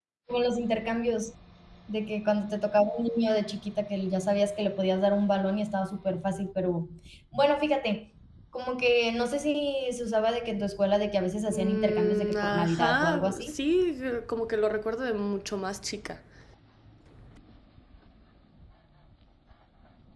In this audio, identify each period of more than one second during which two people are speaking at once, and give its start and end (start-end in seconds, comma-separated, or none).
11.5-13.6